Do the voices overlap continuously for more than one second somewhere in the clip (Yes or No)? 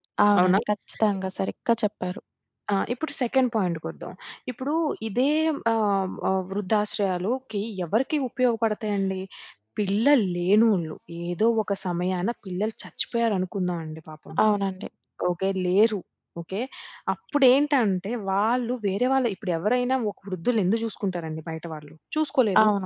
No